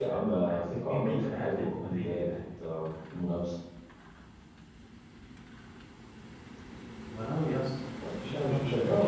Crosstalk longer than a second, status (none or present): present